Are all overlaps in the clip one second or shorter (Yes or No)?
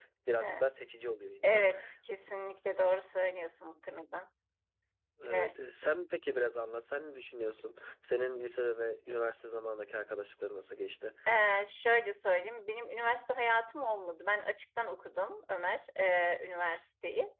Yes